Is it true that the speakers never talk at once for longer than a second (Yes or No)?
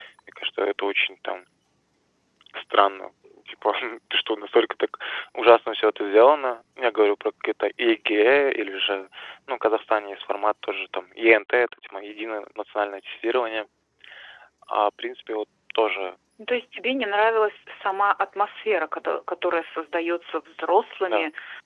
Yes